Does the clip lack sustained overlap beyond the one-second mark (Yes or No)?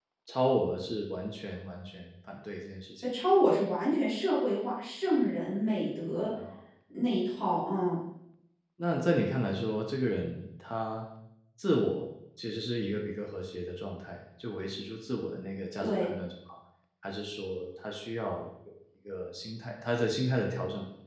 Yes